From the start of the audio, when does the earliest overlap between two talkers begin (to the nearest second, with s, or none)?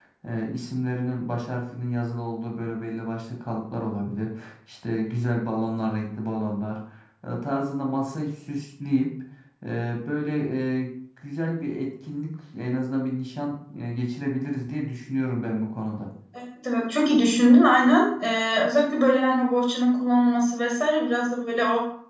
none